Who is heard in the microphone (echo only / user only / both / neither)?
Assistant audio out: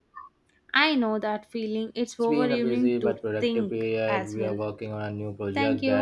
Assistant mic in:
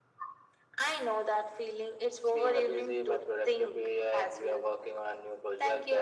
echo only